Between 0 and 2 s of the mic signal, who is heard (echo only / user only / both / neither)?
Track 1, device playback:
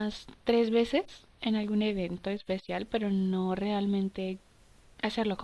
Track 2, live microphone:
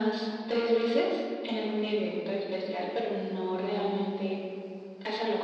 echo only